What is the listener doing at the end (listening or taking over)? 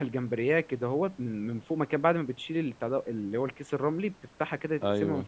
listening